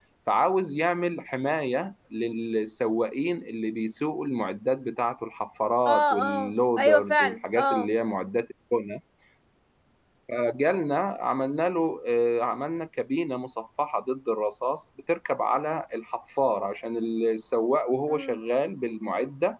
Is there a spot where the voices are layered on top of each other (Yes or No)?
Yes